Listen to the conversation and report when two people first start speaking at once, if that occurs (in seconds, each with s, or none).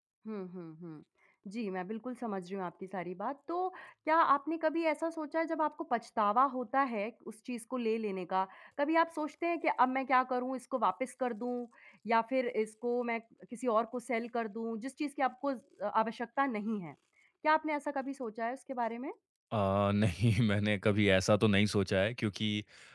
none